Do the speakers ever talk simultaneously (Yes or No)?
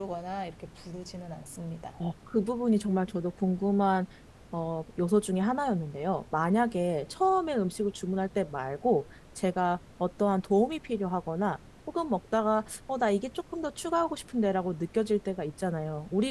No